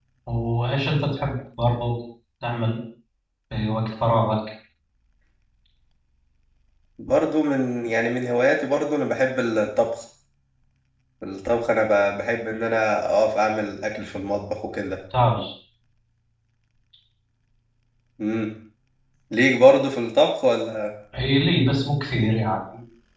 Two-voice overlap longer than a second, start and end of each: none

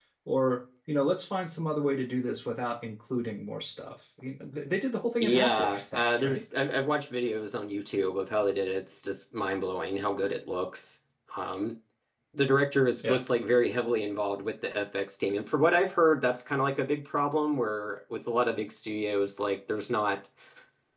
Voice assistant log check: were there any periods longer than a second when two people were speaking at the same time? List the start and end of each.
5.2-6.4

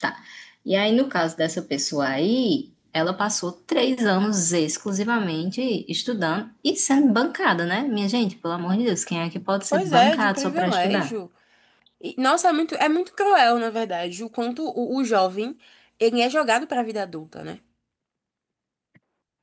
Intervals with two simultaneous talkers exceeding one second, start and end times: 9.7-11.1

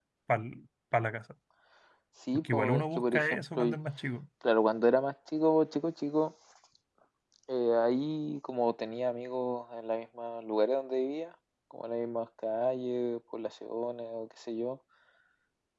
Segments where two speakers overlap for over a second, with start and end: 2.3-3.6

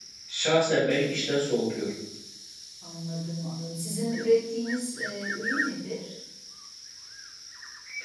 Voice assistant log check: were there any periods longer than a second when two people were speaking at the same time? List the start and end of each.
none

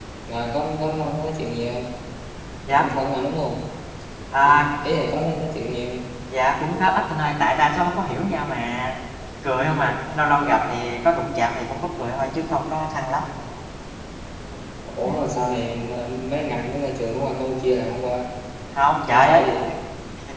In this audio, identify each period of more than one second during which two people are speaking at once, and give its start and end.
none

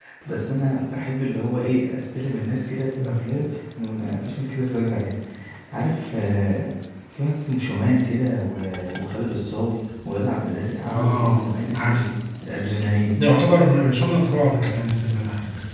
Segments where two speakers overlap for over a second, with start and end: 10.8-12.0

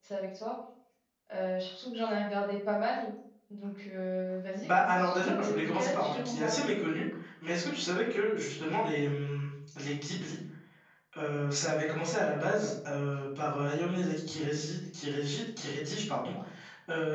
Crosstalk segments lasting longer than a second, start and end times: 4.6-6.6

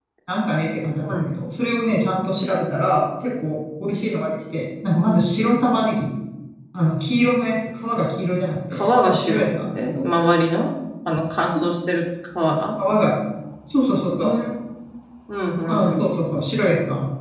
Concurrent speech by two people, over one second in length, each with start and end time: 8.7-10.1

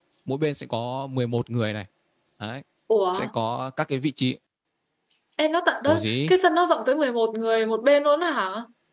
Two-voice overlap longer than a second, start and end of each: none

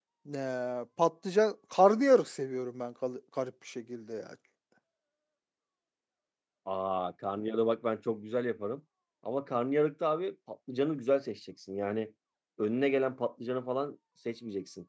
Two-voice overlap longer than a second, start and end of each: none

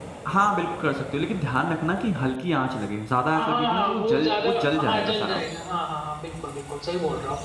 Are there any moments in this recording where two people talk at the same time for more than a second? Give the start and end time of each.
3.3-5.4

